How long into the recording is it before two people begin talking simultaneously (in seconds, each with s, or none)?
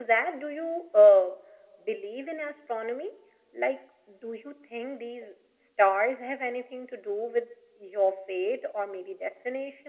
none